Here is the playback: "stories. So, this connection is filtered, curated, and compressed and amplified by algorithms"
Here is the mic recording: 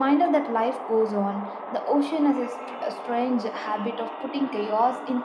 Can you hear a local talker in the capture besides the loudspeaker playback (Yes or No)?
Yes